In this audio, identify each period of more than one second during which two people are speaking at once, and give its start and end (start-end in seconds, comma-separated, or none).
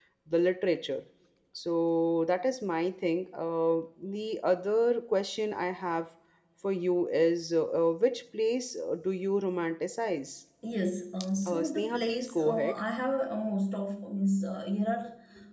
11.5-12.8